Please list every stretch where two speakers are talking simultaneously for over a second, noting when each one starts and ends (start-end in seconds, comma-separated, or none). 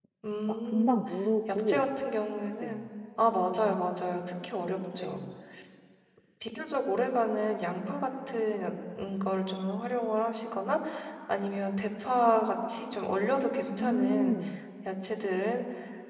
none